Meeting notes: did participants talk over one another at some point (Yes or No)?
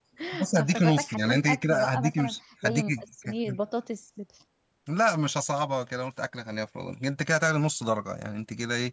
Yes